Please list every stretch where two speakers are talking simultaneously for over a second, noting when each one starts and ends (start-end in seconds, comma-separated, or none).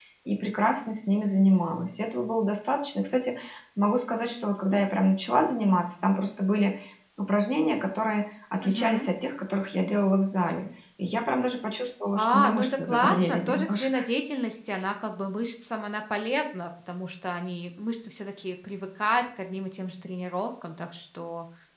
12.1-14.0